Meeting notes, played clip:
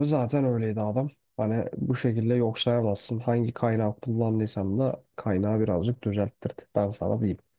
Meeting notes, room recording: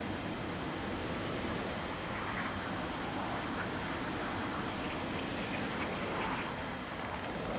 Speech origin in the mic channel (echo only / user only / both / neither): neither